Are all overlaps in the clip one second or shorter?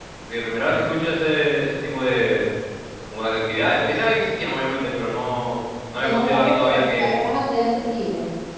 No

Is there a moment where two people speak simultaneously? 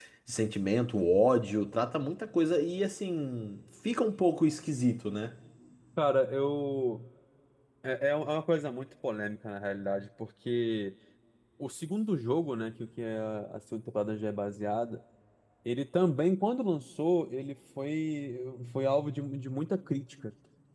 No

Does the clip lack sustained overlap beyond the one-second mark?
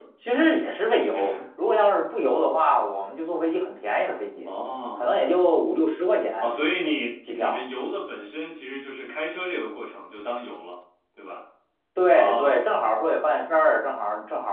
Yes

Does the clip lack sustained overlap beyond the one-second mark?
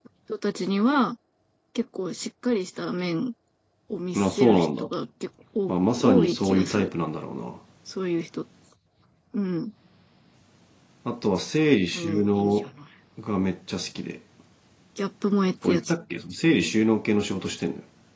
No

